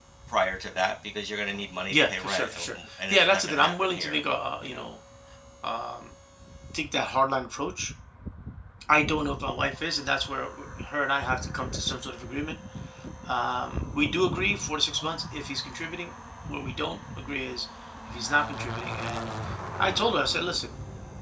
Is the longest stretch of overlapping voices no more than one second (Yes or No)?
No